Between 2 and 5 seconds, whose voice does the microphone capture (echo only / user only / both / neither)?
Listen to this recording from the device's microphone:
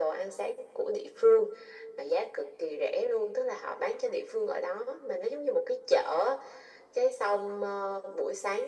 echo only